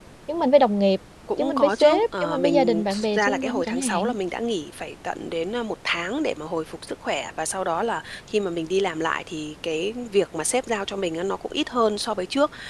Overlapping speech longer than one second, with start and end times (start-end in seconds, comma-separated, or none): 1.4-4.1